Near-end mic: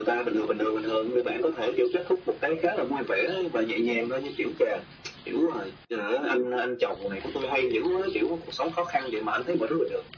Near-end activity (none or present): none